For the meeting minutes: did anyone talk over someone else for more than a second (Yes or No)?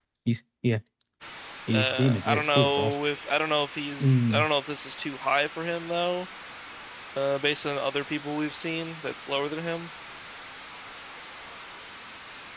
Yes